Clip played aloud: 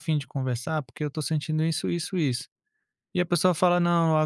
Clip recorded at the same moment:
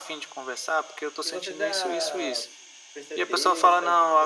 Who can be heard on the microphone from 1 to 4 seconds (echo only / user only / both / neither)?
both